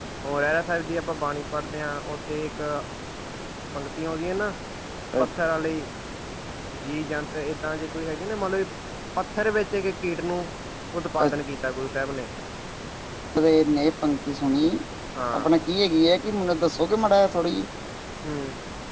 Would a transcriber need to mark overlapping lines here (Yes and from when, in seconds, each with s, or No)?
No